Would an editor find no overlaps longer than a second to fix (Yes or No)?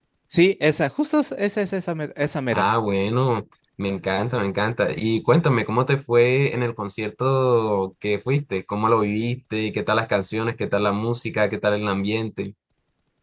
Yes